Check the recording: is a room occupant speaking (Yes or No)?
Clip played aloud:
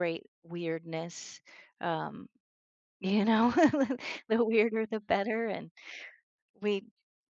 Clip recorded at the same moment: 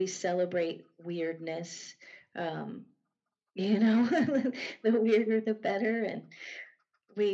No